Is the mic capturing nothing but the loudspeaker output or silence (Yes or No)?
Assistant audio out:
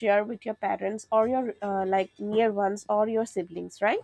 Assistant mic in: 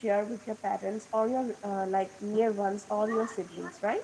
No